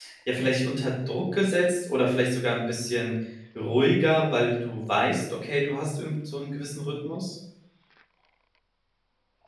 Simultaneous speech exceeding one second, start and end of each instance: none

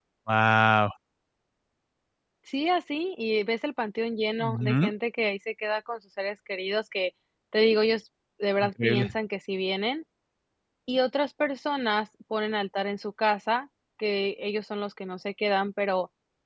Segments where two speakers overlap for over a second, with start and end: none

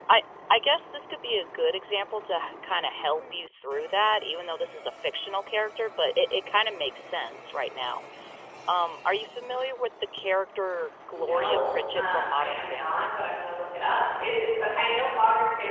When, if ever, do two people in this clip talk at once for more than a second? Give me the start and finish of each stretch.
11.1-13.1

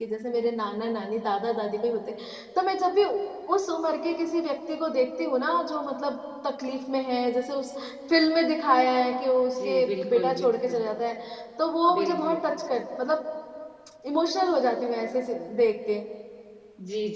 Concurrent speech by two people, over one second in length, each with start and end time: 9.6-10.8

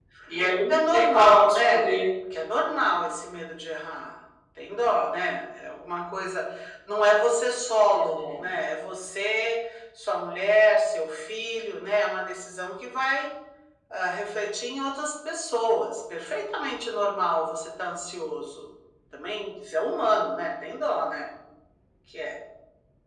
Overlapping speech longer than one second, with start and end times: 0.7-1.9

